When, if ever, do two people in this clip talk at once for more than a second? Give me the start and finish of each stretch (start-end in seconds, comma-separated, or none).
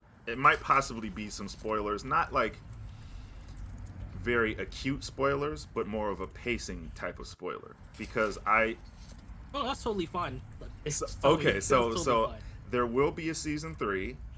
10.9-12.3